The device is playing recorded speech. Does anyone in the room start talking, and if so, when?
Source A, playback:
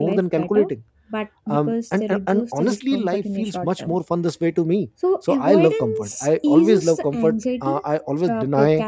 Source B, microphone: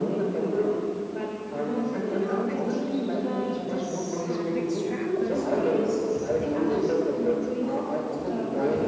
0.6 s

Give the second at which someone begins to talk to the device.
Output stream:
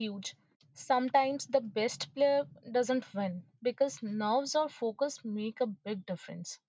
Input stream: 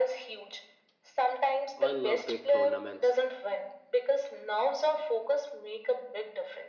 1.8 s

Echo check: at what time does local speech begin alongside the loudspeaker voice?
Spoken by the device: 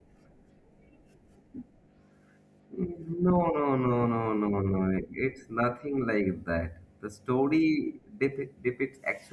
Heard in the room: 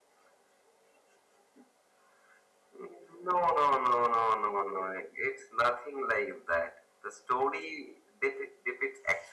none

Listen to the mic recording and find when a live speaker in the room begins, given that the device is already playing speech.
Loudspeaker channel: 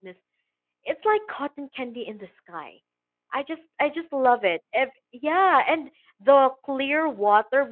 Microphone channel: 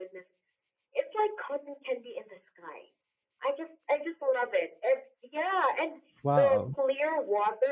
6.2 s

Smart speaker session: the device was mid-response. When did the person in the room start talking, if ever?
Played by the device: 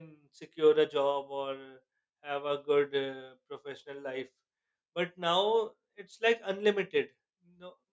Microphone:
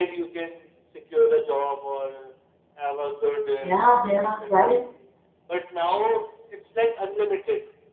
3.6 s

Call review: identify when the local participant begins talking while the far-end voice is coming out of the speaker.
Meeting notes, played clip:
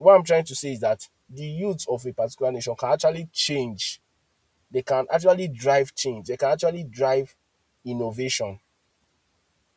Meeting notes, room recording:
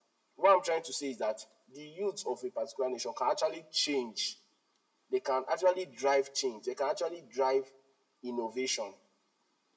none

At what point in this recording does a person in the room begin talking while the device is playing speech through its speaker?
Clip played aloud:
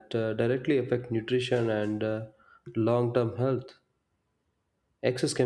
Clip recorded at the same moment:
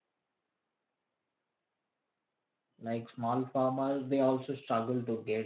2.8 s

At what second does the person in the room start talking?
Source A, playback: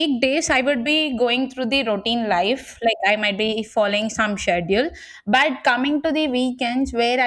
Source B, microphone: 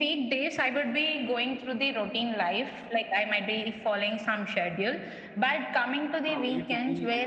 6.2 s

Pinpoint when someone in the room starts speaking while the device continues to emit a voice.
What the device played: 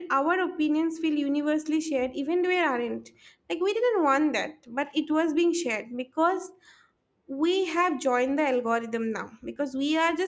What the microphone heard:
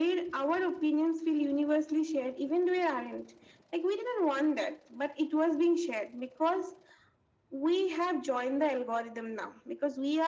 none

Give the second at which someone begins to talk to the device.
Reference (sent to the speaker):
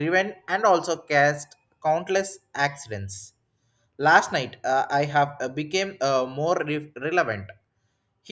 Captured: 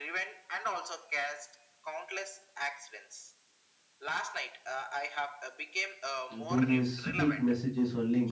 6.3 s

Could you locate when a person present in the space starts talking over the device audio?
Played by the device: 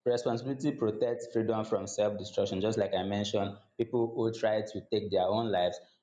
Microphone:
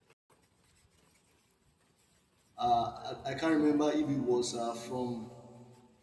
2.6 s

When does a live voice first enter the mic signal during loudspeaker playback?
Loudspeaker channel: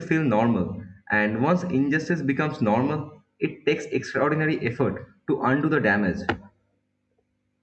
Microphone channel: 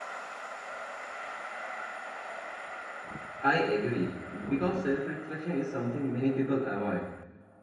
3.4 s

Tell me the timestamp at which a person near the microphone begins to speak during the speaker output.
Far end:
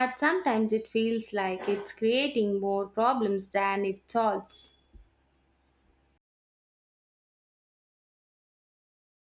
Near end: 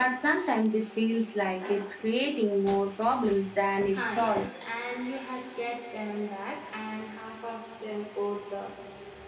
4.0 s

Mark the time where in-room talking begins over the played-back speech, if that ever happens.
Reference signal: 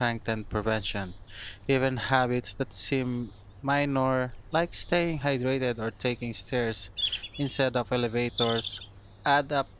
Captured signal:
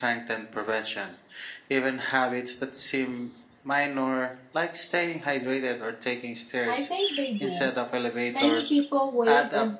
6.7 s

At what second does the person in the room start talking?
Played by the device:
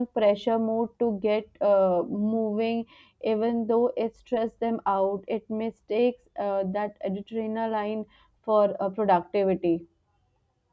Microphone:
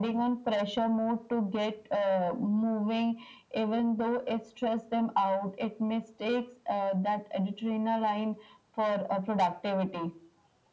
none

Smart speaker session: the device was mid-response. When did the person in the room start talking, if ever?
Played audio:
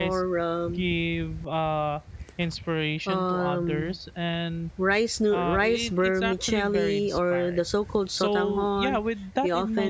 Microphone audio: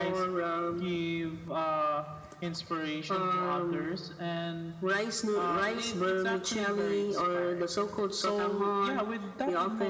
none

